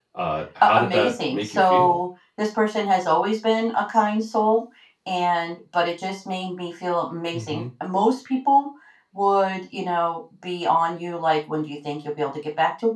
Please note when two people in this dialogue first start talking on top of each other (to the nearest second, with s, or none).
1 s